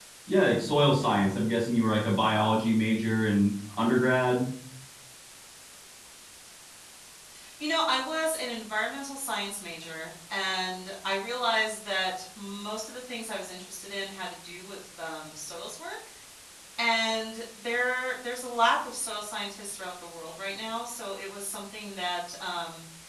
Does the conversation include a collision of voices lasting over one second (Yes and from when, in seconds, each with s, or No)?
No